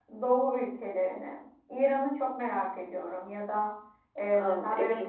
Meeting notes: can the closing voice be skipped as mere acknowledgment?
Yes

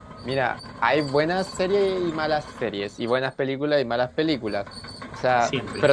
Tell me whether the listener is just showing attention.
Yes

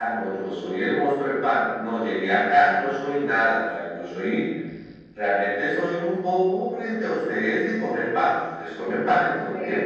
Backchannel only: No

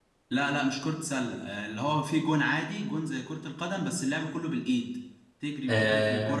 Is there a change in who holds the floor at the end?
No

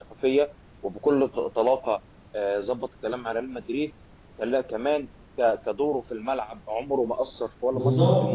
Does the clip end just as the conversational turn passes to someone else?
Yes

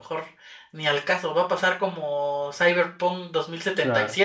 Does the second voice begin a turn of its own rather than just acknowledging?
No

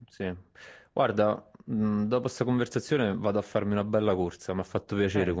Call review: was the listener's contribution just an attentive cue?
No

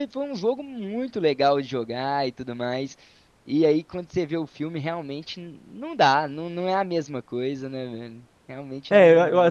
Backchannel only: No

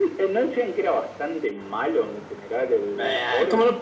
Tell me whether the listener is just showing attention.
No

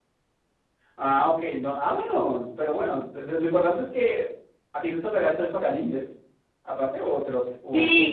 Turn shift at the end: Yes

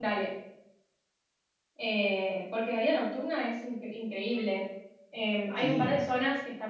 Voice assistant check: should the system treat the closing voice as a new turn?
No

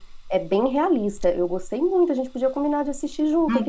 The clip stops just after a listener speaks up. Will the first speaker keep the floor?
No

